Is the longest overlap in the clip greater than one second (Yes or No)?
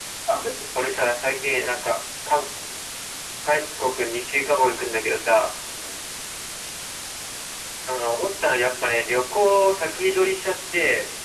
No